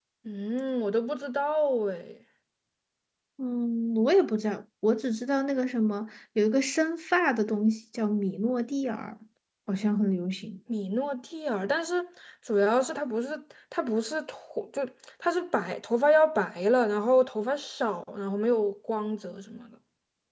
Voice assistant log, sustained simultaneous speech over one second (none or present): none